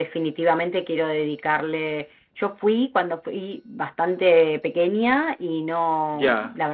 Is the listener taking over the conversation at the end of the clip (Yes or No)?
No